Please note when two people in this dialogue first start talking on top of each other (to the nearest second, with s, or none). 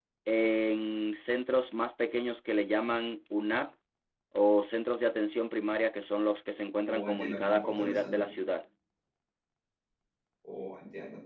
7 s